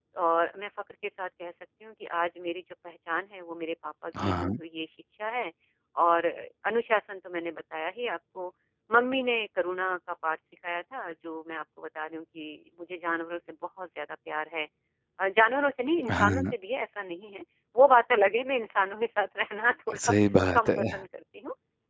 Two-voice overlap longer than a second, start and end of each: none

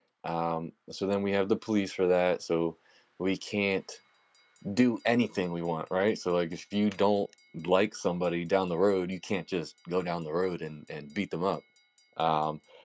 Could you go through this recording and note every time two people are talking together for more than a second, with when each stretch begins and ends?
none

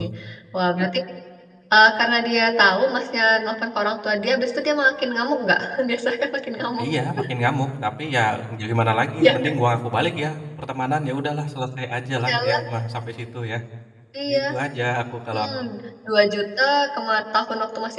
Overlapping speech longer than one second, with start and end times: none

